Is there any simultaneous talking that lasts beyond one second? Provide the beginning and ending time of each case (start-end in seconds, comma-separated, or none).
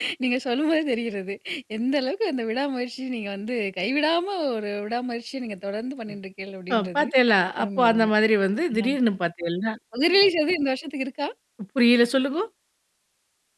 none